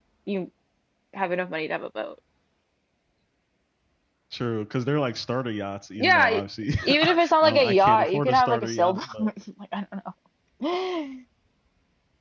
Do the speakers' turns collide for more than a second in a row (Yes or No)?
Yes